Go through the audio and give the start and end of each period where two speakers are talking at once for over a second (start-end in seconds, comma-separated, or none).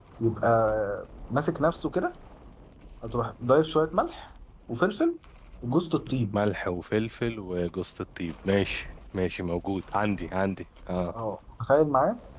none